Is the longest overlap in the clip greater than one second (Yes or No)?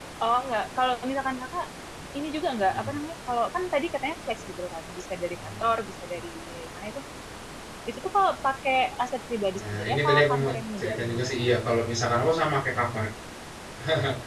Yes